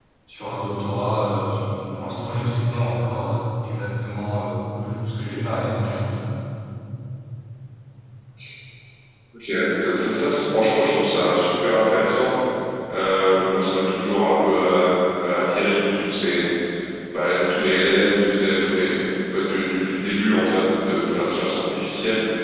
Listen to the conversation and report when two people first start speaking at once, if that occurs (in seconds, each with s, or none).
none